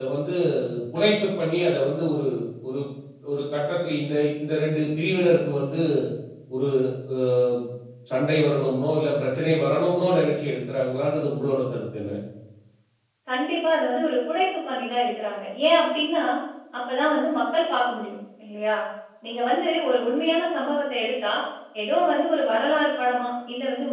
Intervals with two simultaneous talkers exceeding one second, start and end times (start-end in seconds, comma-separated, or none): none